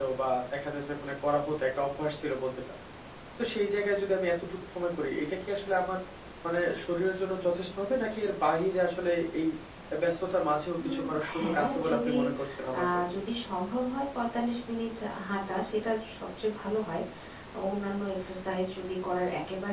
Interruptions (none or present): present